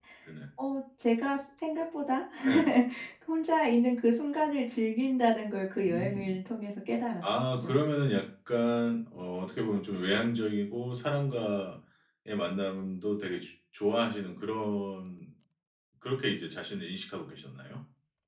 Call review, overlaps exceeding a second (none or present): none